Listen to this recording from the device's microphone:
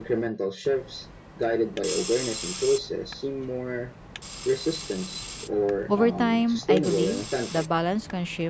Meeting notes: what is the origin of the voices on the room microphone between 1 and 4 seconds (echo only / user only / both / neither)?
echo only